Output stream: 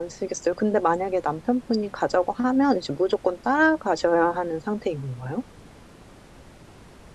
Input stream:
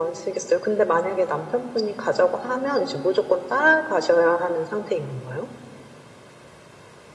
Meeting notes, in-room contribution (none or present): none